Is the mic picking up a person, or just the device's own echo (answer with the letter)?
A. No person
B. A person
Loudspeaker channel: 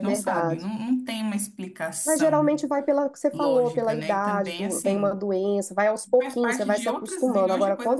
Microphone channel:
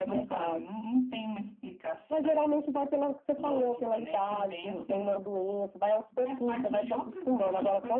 A